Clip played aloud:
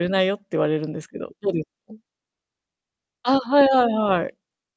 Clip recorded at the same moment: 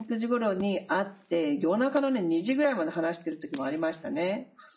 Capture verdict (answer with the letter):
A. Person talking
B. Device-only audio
A